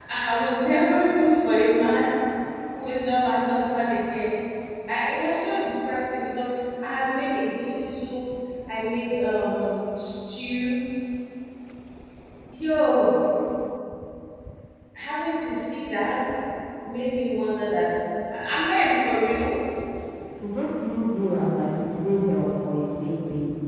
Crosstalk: none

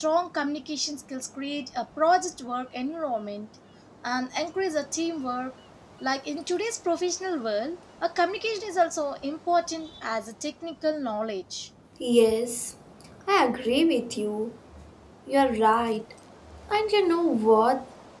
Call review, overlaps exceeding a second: none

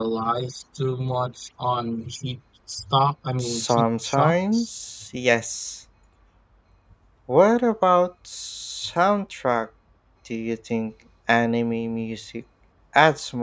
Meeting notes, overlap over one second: present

